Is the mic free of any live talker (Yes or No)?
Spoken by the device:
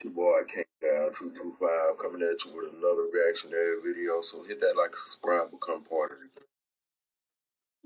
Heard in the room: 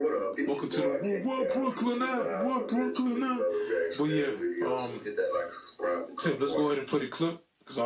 No